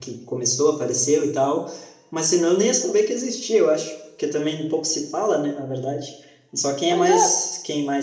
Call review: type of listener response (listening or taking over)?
listening